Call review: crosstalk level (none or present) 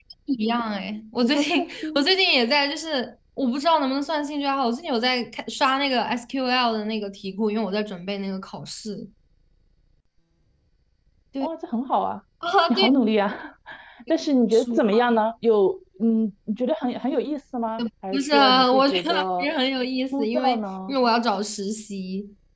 present